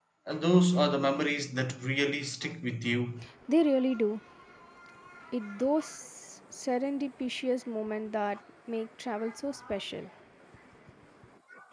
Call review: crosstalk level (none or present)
none